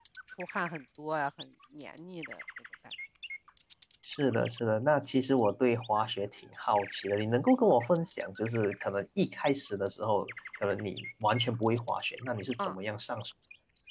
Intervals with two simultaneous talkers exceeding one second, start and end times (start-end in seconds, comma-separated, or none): none